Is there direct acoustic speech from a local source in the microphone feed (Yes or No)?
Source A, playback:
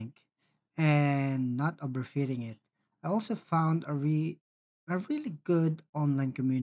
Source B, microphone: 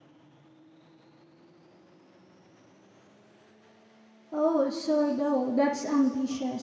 Yes